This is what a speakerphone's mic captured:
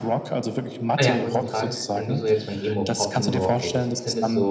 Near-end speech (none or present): present